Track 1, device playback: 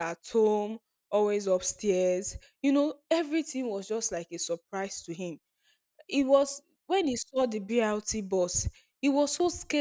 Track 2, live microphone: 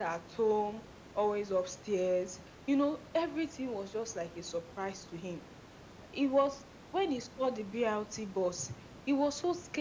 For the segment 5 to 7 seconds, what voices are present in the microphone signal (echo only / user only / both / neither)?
echo only